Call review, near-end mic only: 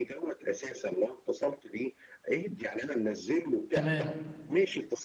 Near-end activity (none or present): present